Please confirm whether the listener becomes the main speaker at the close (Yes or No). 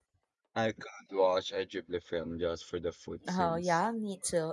Yes